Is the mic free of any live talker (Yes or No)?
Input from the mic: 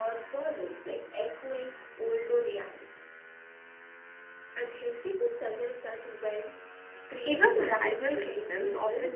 No